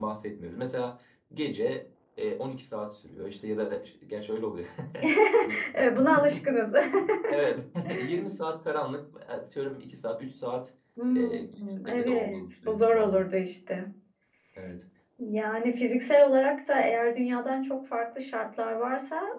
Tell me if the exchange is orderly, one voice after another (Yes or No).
No